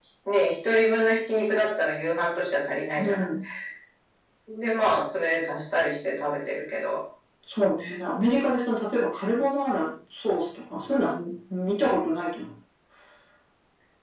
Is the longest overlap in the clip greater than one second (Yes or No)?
No